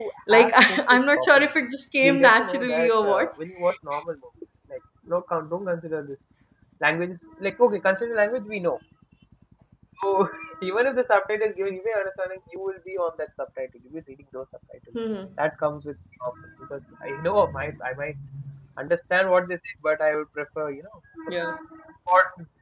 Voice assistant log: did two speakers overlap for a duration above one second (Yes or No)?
Yes